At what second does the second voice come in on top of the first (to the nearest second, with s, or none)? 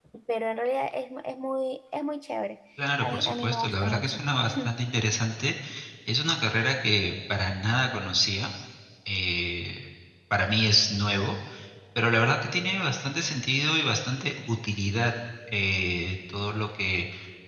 3 s